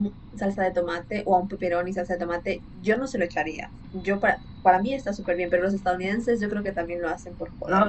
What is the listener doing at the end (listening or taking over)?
taking over